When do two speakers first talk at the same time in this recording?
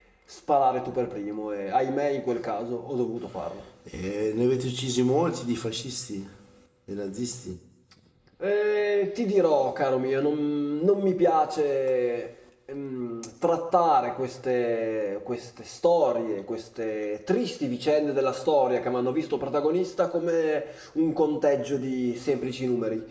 none

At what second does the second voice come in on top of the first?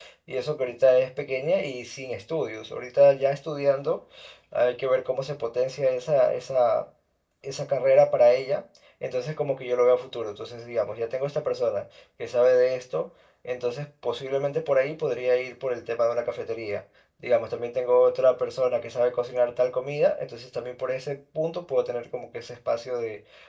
none

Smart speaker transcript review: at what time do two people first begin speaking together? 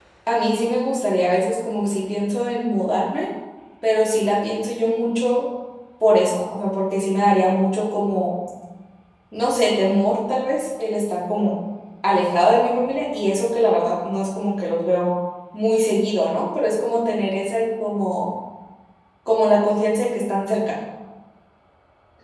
none

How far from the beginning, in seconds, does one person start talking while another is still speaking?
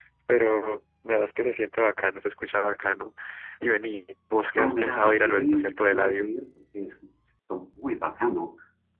4.5 s

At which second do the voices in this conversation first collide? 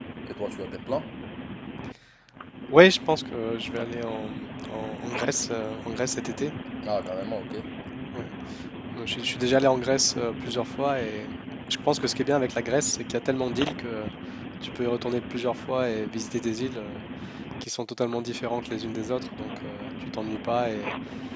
none

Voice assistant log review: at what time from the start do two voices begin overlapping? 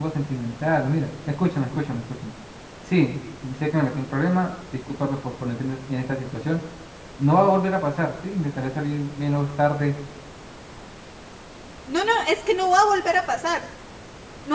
none

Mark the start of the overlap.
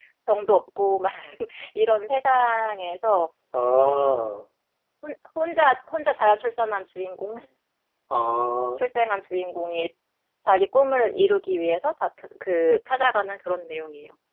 none

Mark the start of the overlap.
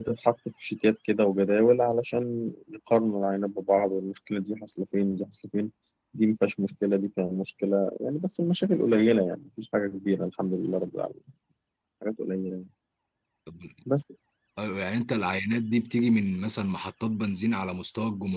none

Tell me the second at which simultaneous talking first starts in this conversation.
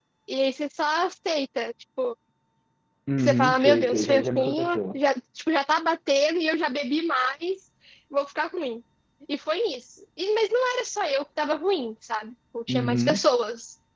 3.2 s

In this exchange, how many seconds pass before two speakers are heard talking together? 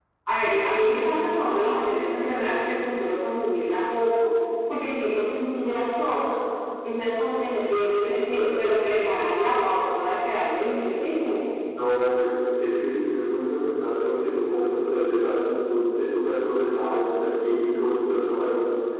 none

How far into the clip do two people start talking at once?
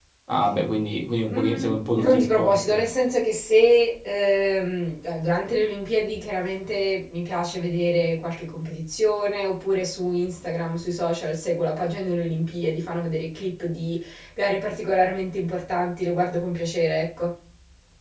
1.3 s

